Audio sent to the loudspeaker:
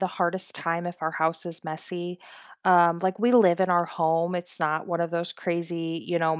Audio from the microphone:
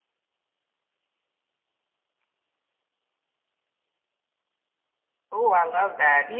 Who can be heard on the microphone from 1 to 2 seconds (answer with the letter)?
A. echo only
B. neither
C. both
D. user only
B